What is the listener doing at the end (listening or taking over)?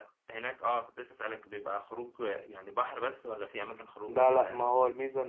taking over